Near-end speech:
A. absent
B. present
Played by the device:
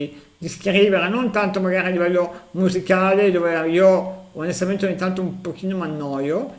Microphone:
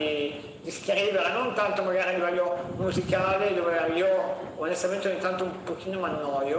A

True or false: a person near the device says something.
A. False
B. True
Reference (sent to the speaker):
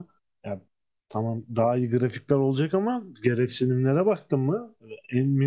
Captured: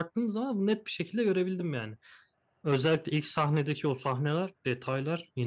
B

